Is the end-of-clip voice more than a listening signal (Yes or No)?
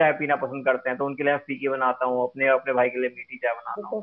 Yes